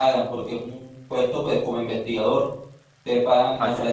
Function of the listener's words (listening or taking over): listening